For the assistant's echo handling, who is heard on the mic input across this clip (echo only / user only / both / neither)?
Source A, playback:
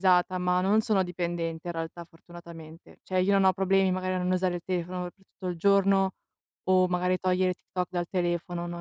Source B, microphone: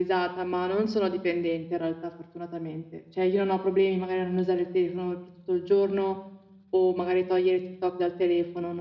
echo only